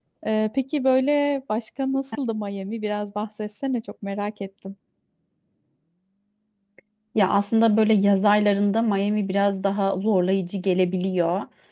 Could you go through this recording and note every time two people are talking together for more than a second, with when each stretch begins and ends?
none

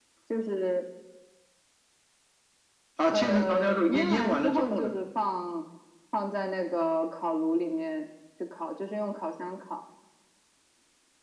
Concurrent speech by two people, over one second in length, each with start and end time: 3.1-4.9

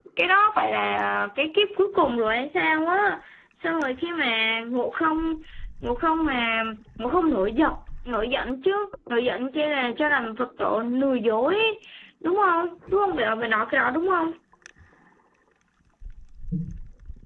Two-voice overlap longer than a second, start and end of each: none

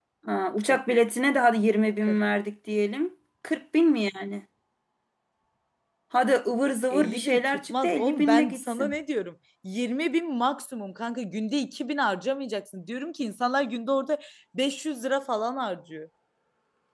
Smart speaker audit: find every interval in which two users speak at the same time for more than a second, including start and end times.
6.9-8.9

